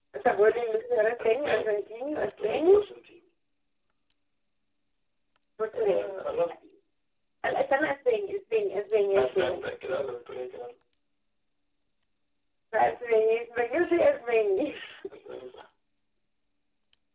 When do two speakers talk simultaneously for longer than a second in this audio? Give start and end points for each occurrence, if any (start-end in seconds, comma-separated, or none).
1.2-2.7